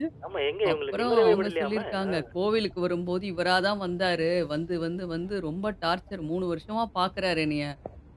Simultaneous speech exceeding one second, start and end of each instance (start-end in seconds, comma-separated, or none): 0.7-2.1